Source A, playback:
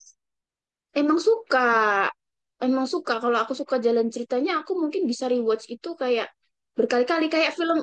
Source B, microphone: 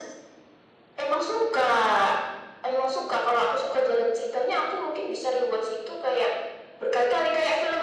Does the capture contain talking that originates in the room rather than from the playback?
No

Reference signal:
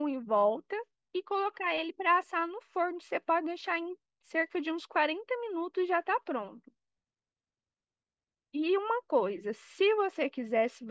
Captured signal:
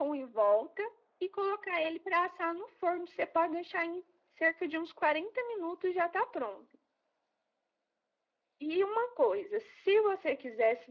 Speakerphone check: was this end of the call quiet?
Yes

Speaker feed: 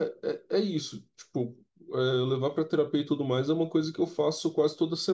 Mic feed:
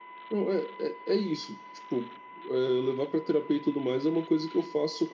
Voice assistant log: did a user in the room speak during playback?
No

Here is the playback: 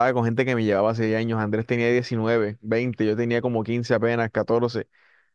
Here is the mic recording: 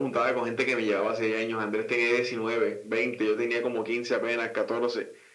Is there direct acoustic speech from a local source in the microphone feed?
No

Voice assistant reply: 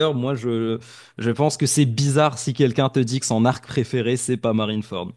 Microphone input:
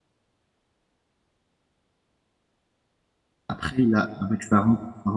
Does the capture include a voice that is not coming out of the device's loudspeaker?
Yes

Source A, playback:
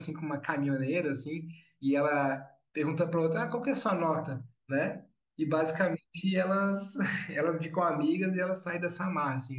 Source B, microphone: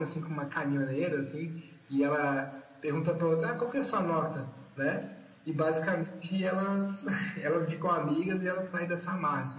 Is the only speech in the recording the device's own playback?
Yes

